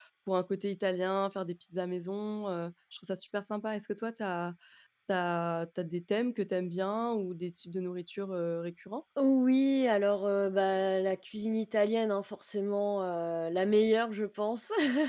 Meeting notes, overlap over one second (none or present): none